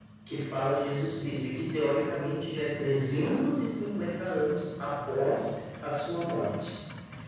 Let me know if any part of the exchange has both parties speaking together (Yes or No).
No